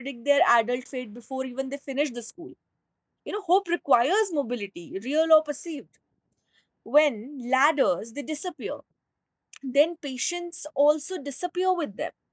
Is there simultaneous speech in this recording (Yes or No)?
No